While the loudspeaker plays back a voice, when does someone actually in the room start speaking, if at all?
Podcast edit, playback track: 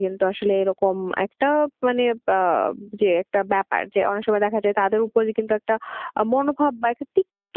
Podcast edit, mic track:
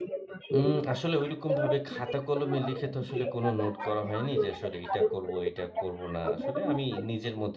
0.6 s

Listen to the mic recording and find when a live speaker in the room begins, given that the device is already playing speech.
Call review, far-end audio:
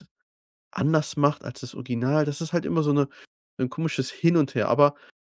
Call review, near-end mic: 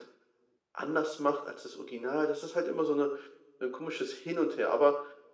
none

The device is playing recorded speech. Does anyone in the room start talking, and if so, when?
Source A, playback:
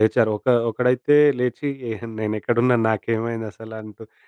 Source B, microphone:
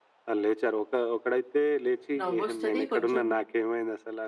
2.2 s

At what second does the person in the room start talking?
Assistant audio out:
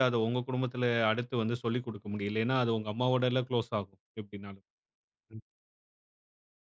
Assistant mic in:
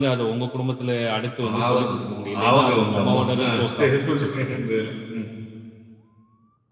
1.4 s

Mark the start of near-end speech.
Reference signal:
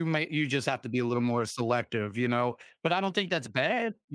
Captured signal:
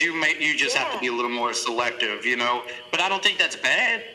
0.6 s

